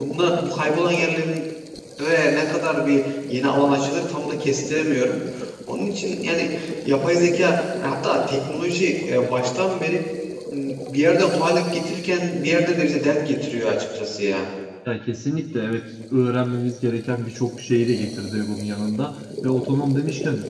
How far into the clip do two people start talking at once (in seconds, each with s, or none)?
none